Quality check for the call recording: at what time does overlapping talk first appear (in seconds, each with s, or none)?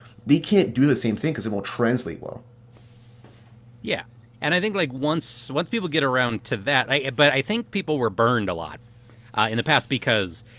none